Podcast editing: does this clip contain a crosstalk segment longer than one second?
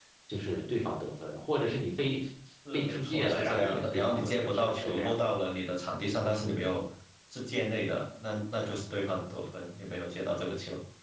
Yes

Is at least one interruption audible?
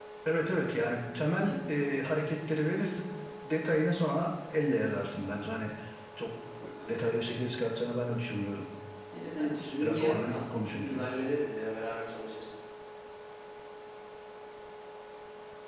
Yes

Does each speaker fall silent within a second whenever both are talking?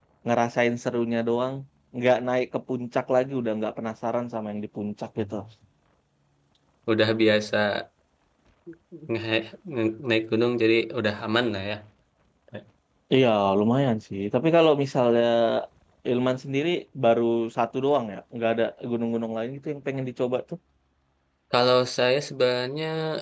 Yes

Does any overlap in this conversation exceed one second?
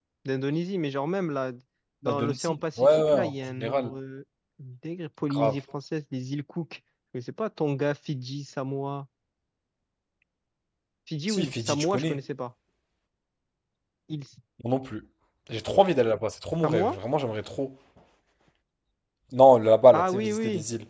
Yes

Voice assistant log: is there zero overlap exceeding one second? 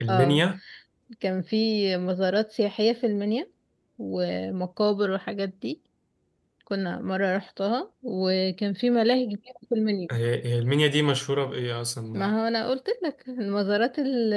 Yes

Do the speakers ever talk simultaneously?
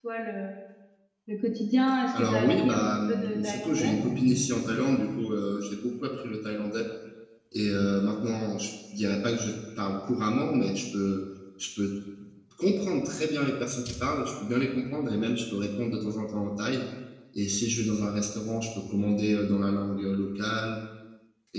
Yes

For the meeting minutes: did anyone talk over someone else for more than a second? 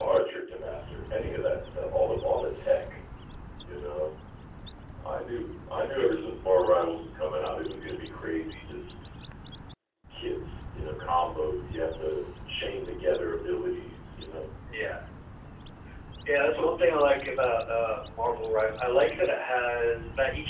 No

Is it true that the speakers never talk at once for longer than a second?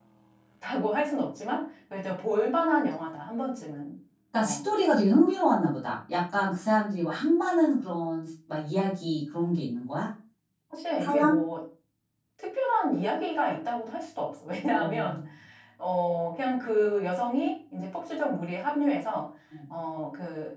Yes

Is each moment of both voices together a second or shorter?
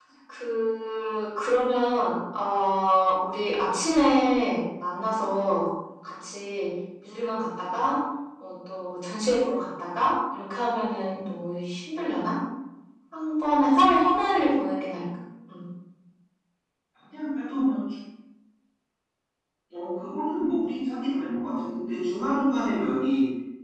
Yes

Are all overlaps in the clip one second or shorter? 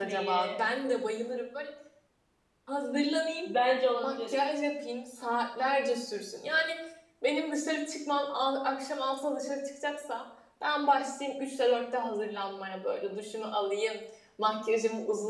Yes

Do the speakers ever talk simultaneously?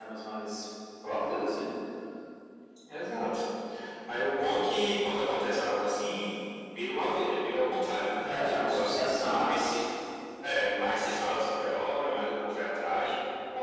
Yes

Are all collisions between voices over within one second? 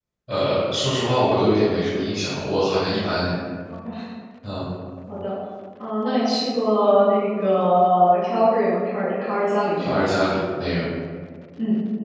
Yes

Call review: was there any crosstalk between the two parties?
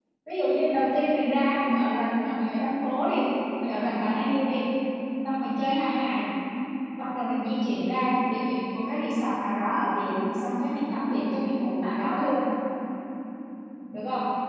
No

